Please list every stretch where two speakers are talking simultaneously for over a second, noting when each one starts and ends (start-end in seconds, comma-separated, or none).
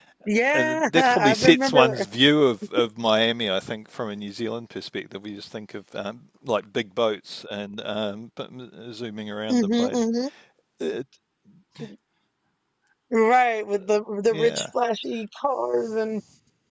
0.5-2.0